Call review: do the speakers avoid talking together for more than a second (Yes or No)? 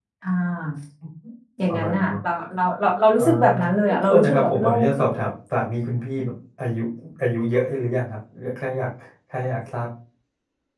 No